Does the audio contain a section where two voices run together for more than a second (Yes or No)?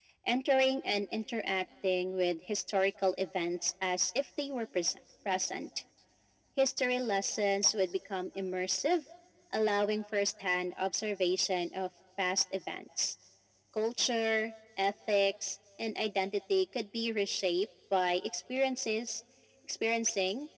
No